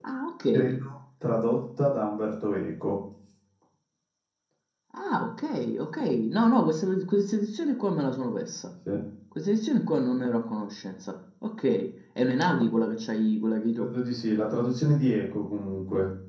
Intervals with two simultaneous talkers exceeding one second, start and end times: none

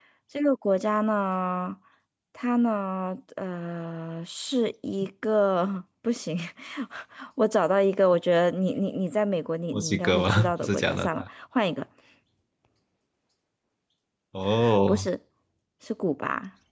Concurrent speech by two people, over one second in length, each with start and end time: 9.7-11.2

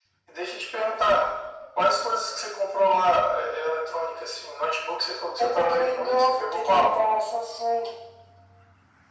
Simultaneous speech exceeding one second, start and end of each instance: 5.4-7.0

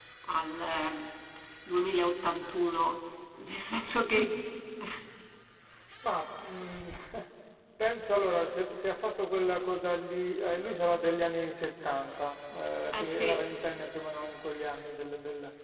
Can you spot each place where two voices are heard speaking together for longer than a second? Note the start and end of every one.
none

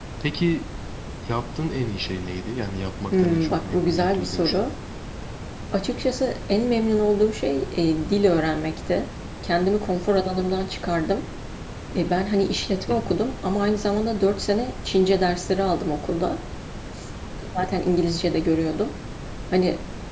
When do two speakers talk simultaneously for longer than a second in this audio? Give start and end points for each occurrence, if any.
3.1-4.7

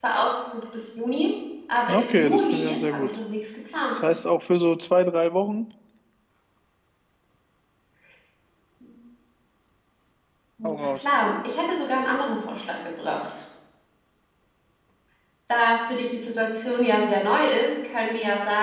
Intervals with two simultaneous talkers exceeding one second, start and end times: 1.9-3.2

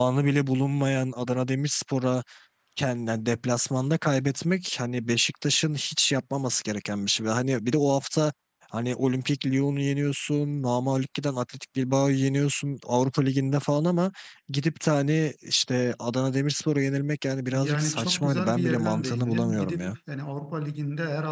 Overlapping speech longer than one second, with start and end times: 17.5-20.0

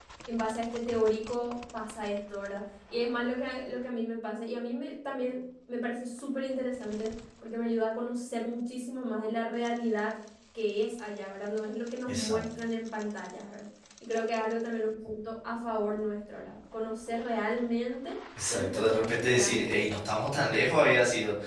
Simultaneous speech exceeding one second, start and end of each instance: 18.5-19.9

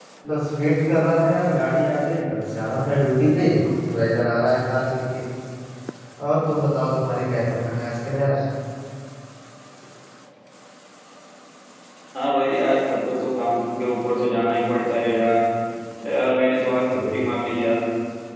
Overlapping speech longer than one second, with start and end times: none

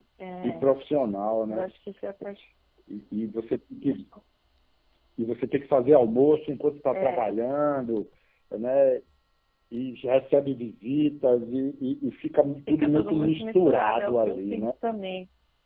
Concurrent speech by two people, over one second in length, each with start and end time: 12.8-14.7

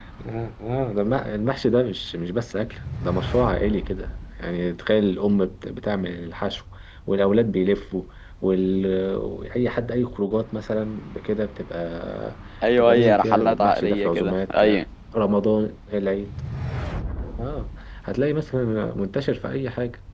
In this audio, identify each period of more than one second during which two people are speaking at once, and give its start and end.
12.8-14.8

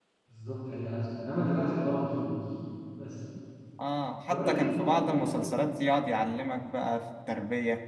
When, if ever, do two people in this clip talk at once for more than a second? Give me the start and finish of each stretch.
4.3-5.5

